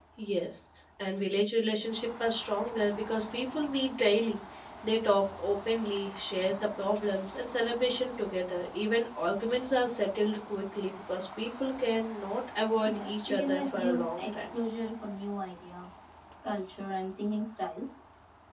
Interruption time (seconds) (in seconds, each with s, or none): 12.8 s